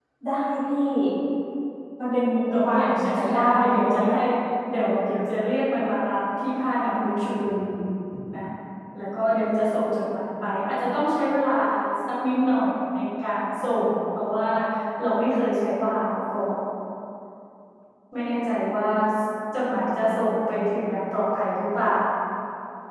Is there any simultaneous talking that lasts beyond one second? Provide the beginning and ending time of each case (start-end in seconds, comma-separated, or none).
2.6-4.2